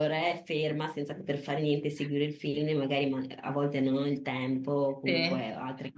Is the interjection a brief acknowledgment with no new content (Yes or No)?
Yes